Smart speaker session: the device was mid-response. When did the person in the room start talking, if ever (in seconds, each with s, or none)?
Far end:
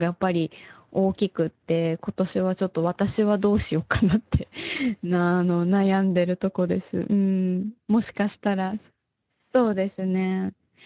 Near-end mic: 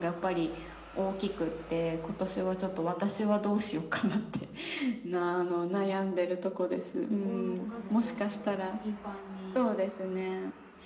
7.0 s